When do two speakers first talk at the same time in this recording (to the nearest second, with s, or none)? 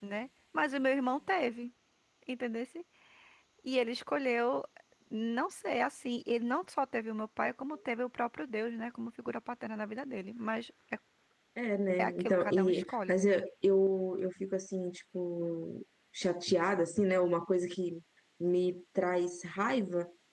12 s